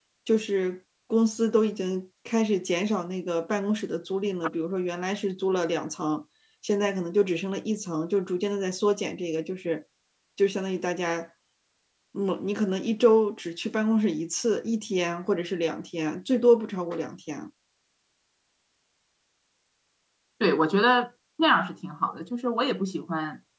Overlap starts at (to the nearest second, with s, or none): none